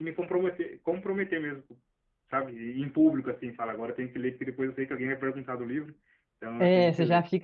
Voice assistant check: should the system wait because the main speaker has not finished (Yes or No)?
No